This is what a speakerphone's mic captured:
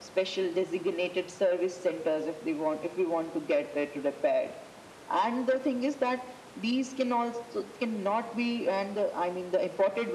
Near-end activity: none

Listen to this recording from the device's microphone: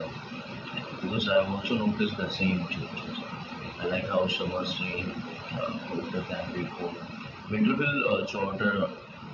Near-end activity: none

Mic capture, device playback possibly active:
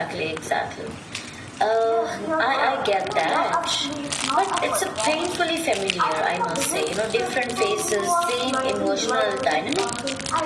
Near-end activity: present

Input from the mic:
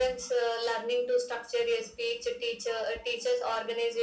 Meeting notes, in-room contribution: none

